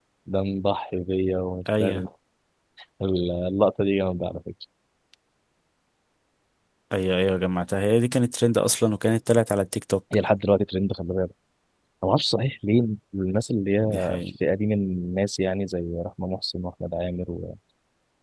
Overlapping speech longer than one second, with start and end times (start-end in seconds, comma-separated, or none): none